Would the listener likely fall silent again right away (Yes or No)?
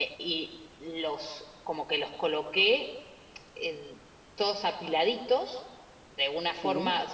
Yes